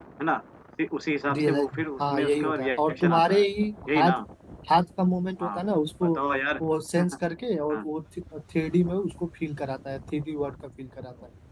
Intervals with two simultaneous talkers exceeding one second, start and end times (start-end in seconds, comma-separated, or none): 1.4-3.4